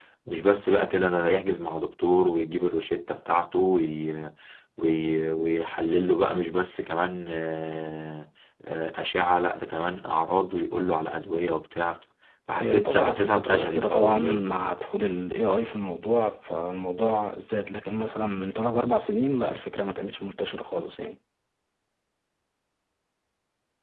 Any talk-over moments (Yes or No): Yes